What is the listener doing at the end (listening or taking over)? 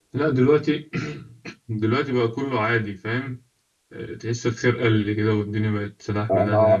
taking over